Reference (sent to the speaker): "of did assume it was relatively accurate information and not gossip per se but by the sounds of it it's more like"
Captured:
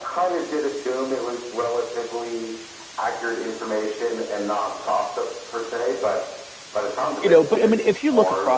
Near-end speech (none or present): present